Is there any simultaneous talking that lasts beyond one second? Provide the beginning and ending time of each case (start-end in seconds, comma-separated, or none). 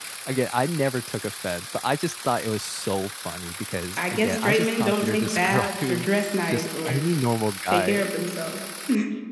4.0-6.1